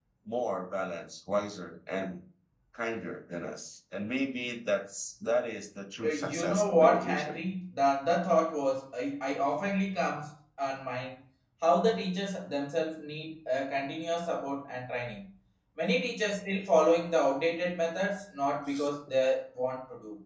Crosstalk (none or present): present